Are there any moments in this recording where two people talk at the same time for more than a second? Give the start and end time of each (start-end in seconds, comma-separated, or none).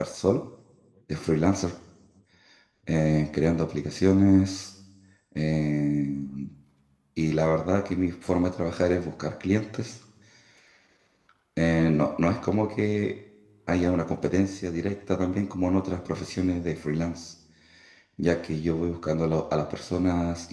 none